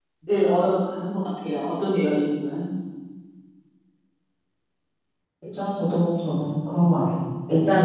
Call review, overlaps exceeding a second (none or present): none